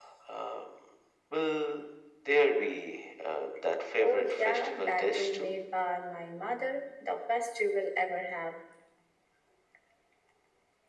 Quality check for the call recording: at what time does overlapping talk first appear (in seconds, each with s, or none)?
4.0 s